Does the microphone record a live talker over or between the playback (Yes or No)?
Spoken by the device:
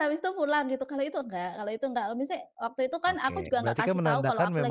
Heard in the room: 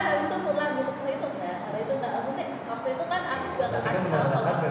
No